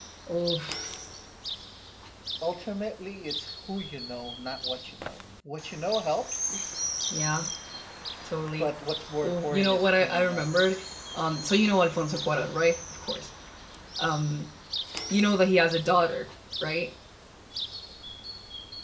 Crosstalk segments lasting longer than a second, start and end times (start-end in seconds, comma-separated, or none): 9.2-10.5